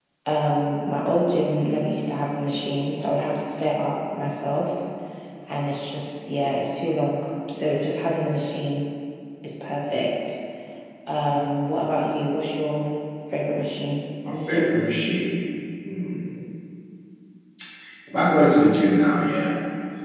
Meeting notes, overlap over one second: none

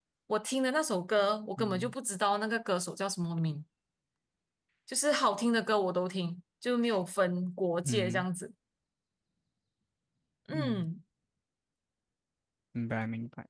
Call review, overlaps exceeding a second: none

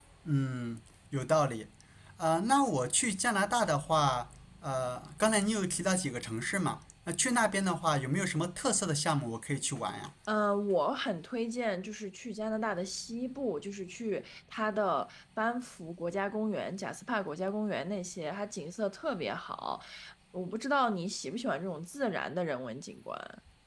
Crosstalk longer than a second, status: none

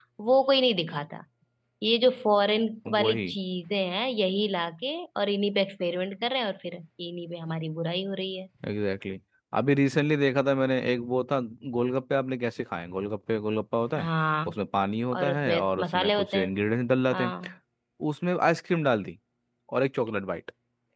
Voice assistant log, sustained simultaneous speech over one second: present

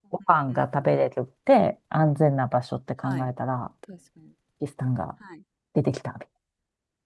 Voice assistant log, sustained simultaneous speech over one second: none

